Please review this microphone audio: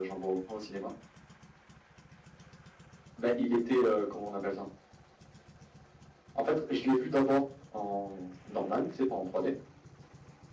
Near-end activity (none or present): none